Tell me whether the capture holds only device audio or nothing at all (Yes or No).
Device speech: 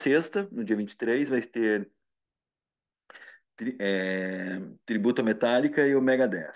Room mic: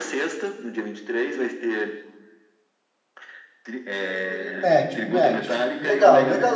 No